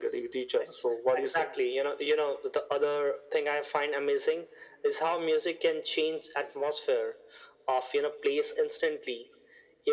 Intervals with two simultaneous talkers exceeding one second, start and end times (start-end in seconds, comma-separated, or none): none